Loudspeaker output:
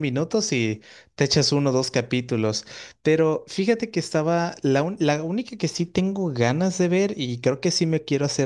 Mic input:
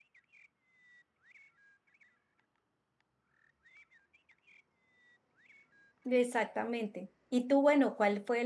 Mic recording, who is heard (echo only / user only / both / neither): user only